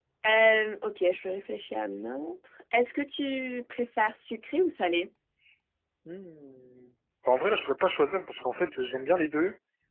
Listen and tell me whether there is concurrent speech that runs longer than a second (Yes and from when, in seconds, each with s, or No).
No